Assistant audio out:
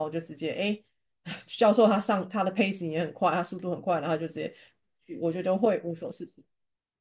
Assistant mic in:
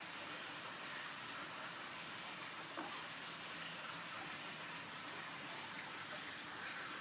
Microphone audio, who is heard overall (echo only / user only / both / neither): neither